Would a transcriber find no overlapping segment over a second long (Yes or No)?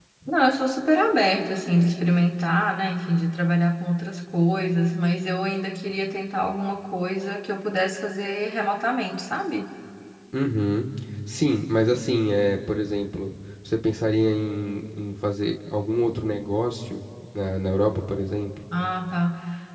Yes